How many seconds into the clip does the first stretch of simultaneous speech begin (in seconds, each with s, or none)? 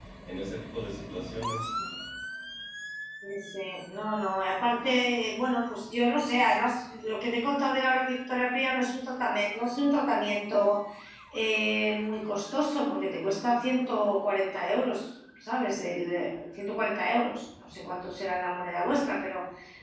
none